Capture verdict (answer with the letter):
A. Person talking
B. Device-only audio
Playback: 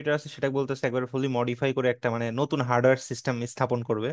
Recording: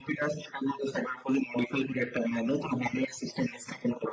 B